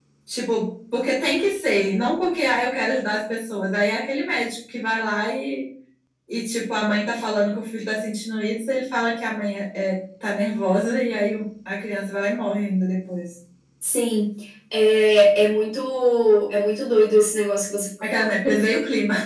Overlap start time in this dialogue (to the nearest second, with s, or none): none